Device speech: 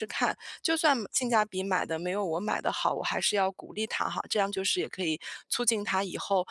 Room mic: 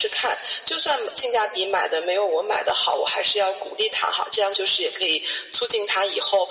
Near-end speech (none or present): none